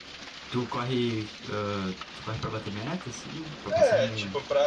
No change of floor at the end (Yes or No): No